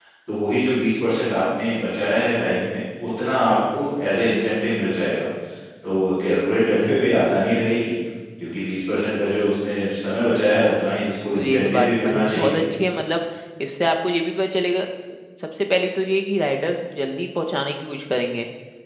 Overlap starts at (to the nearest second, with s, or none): 11 s